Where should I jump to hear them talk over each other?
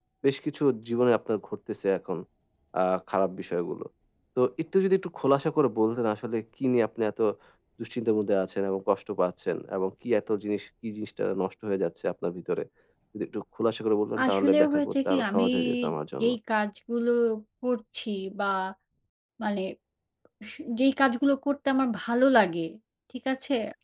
14 s

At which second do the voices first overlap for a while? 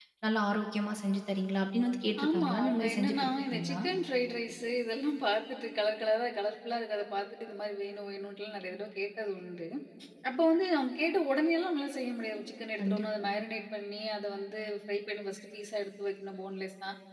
2 s

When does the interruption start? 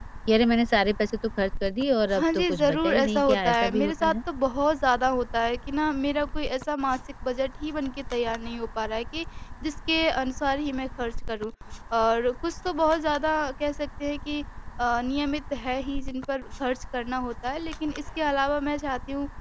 2 s

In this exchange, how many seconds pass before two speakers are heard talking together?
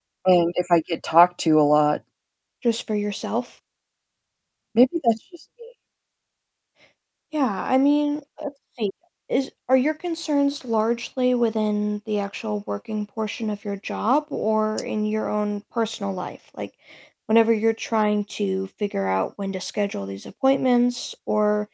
none

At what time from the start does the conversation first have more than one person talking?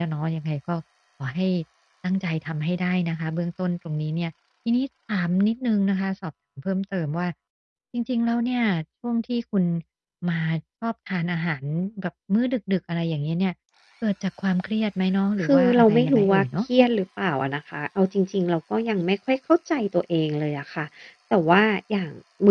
15 s

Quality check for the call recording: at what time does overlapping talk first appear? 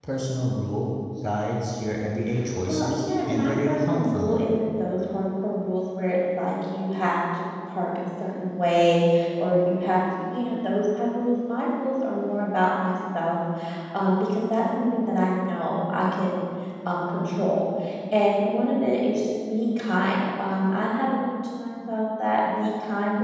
3 s

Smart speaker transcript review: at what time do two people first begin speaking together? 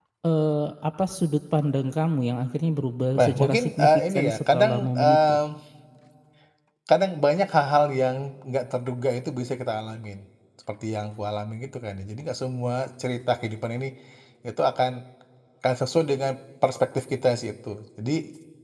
3 s

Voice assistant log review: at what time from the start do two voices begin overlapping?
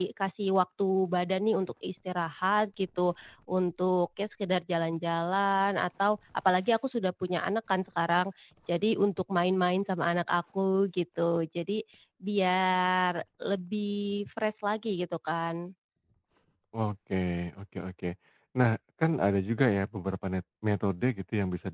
none

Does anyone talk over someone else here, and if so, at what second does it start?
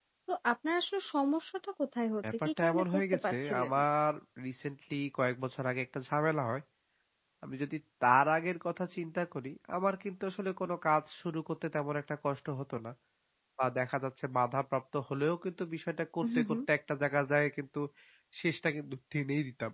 2 s

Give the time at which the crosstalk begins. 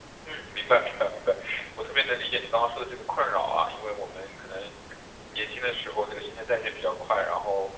none

